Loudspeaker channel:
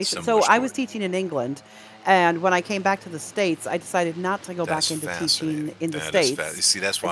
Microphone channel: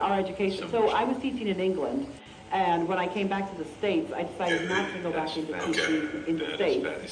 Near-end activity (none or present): present